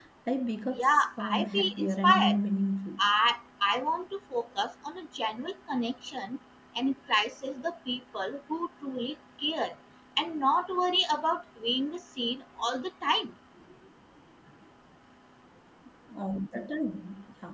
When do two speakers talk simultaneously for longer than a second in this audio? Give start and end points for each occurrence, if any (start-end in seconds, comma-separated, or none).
0.8-2.4